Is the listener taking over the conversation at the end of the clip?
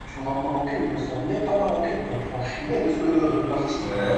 Yes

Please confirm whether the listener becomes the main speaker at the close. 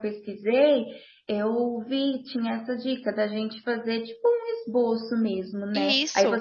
No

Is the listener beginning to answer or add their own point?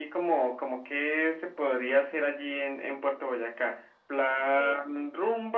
No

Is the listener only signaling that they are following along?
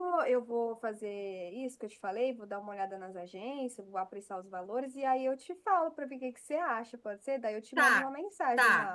No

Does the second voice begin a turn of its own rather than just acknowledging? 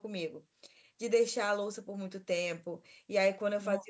No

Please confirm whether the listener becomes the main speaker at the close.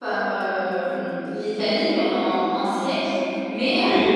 No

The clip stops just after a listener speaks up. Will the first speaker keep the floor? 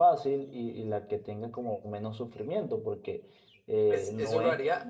No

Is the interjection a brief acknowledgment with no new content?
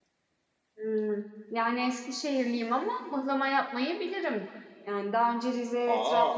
Yes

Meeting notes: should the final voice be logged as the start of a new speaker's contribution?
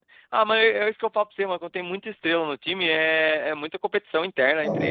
Yes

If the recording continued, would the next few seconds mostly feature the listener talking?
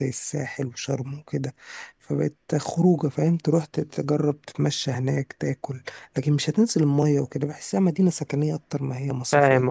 Yes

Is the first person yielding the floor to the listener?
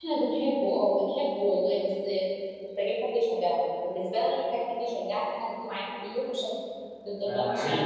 Yes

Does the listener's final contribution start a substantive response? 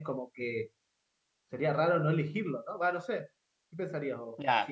Yes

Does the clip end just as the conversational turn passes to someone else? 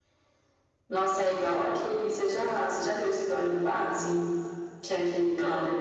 No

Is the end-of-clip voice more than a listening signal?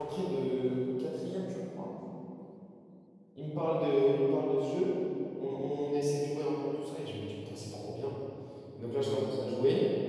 No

